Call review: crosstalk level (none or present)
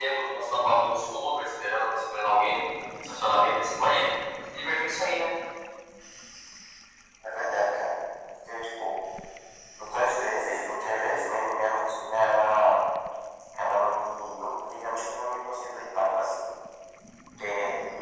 none